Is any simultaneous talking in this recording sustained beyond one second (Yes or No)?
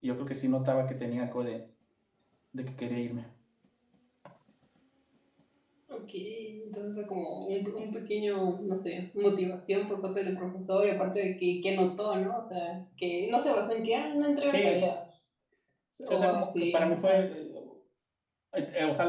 Yes